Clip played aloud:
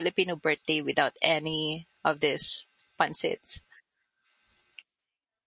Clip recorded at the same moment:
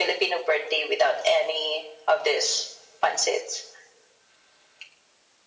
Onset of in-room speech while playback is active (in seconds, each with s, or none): none